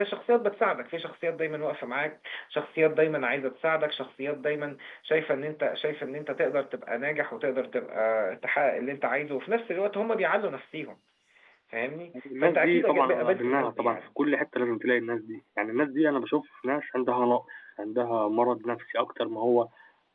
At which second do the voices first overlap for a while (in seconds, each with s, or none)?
12.4 s